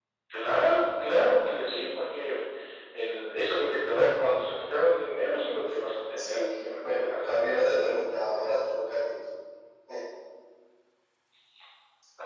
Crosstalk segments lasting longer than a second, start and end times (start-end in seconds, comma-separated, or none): 6.2-8.4